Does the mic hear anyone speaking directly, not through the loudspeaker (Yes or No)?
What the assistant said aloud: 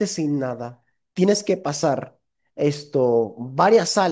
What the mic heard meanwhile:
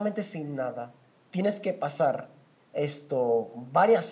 No